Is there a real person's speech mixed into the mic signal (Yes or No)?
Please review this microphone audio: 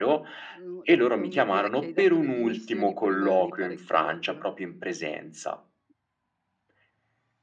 Yes